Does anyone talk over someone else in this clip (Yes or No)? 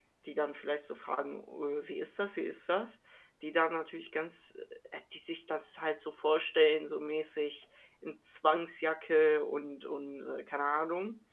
No